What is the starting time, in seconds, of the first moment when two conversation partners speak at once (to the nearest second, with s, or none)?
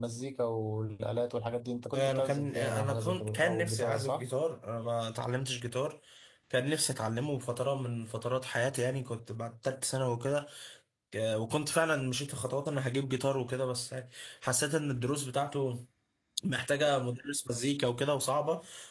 2 s